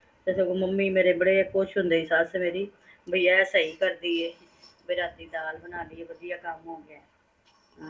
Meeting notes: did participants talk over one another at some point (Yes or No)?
No